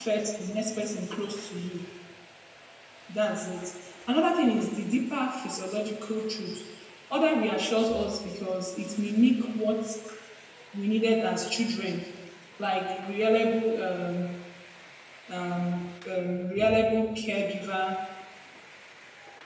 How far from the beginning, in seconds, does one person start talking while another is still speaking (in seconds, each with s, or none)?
none